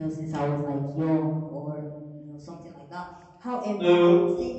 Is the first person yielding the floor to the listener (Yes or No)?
No